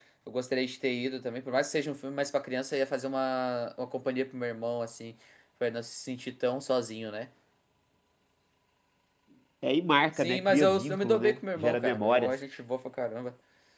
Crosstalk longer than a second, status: present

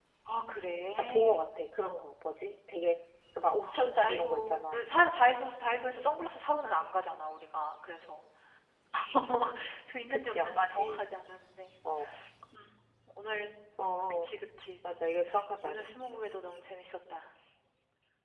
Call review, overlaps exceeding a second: present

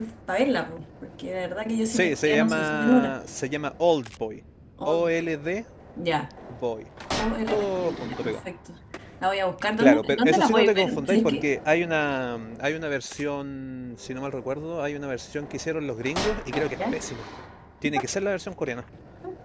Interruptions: present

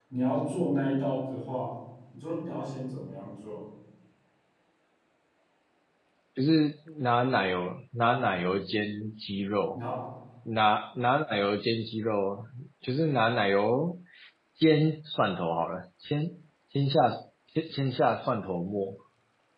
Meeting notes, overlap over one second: none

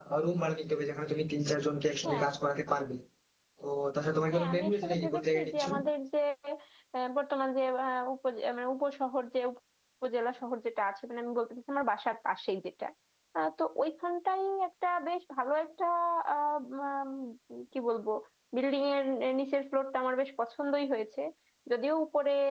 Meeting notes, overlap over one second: present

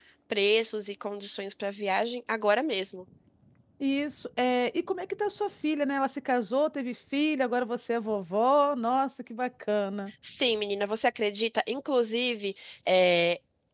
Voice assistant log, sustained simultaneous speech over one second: none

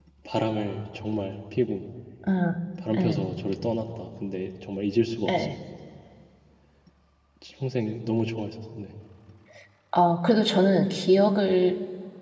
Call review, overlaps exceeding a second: none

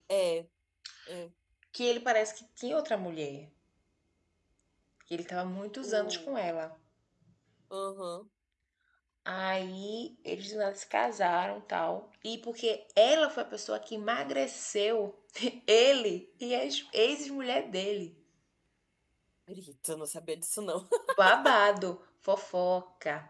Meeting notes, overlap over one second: none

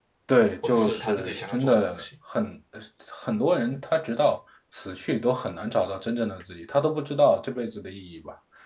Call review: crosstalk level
present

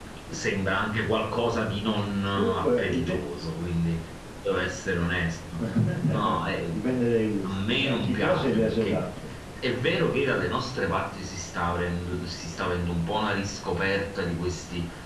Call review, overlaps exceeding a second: present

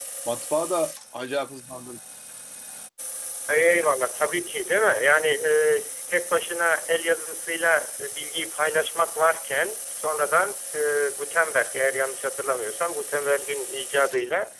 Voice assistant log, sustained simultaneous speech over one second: none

